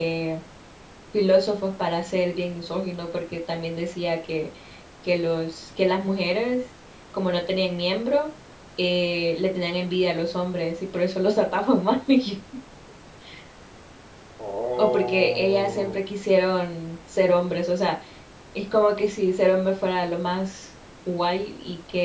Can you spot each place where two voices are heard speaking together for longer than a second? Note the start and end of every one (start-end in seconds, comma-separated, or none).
14.8-16.0